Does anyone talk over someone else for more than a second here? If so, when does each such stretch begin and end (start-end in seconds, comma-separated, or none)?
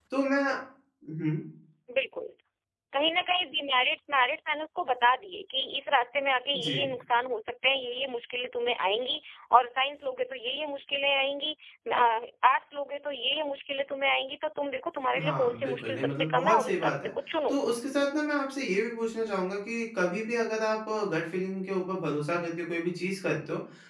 15.2-16.9